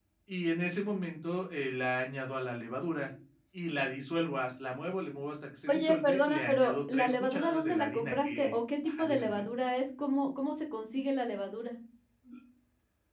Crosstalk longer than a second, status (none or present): present